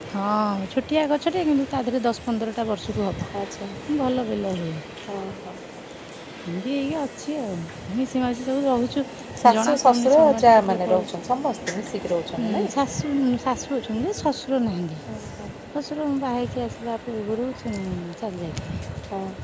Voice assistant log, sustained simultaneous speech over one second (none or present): present